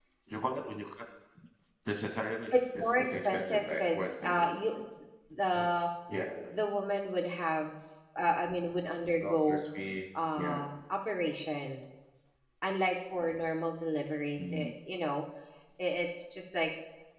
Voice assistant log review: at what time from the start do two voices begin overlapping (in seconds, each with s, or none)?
2.5 s